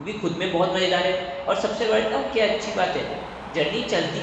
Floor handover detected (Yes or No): No